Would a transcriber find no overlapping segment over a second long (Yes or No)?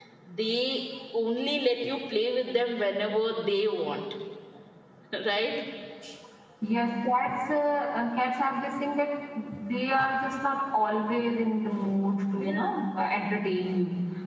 Yes